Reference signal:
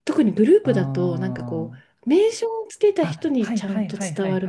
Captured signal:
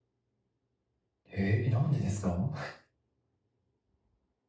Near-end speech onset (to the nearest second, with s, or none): 1 s